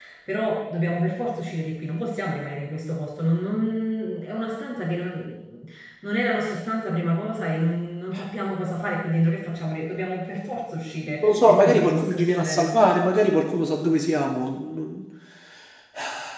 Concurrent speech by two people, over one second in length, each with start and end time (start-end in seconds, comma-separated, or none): 11.2-12.8